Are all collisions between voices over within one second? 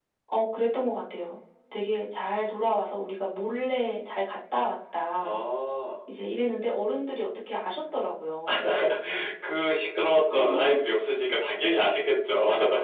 Yes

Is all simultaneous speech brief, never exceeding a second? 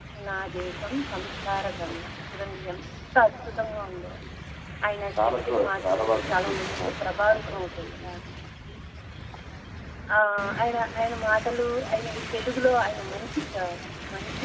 No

